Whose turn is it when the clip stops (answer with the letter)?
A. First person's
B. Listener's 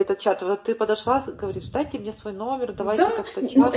B